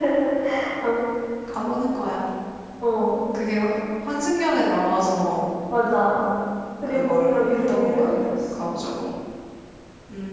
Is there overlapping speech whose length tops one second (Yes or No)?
Yes